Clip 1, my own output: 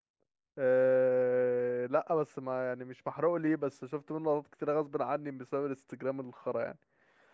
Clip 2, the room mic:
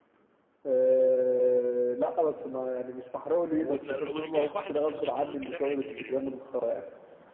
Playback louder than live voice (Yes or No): Yes